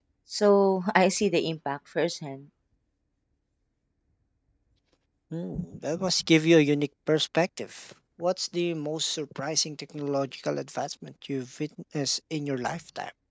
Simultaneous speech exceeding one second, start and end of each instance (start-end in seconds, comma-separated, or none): none